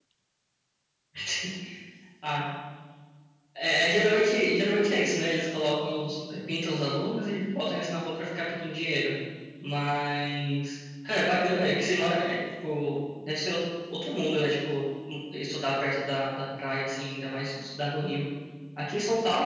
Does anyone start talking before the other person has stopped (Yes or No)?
No